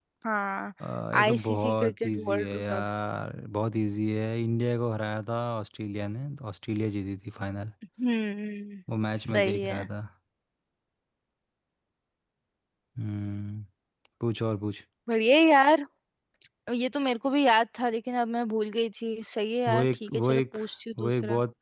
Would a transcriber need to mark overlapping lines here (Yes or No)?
Yes